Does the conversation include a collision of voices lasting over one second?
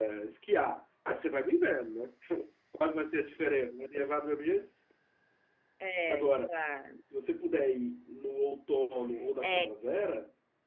No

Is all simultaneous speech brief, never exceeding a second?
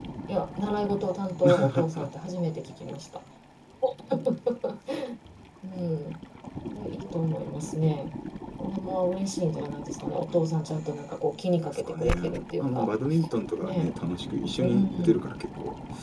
No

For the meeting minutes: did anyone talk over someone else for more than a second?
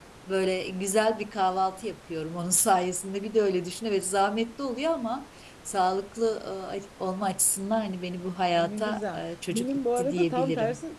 Yes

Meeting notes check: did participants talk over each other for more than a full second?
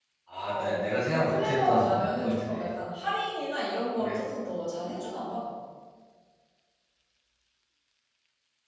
Yes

